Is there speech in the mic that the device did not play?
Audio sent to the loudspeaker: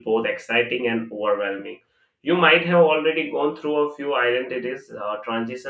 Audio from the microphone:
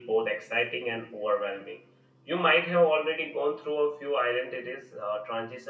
No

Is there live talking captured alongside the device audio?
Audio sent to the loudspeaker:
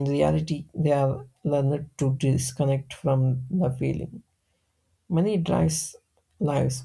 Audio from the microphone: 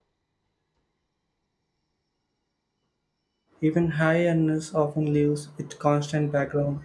Yes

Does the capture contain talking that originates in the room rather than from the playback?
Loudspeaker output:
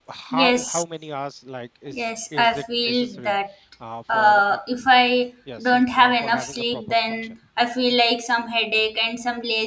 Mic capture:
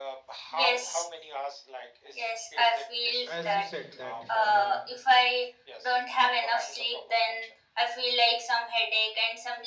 Yes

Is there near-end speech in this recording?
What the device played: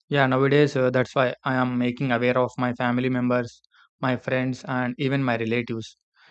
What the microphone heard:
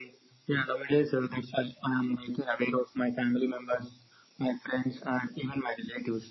No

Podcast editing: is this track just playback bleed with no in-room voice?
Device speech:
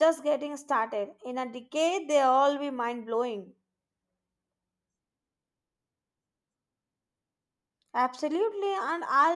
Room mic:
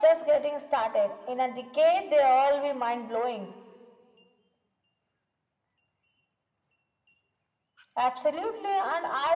Yes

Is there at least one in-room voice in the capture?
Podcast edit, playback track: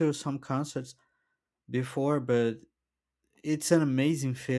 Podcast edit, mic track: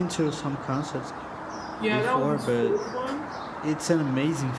Yes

